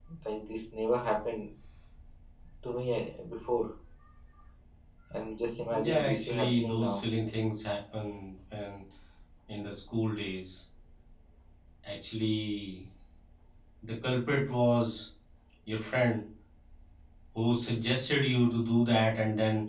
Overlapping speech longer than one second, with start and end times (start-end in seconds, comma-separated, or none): 5.7-7.0